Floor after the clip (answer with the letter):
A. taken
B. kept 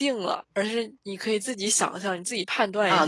A